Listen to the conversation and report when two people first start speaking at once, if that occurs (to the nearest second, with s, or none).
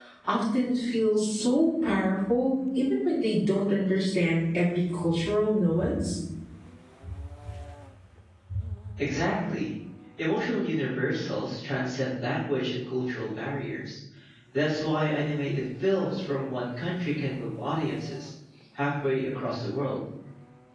none